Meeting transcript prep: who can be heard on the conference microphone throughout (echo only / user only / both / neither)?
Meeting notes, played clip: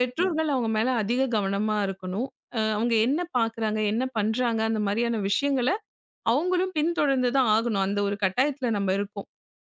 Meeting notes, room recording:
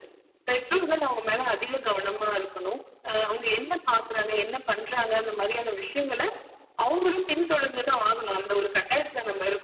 echo only